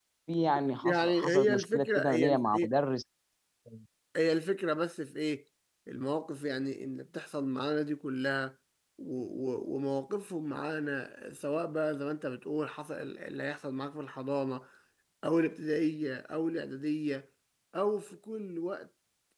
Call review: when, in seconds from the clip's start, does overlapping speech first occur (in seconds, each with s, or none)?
0.8 s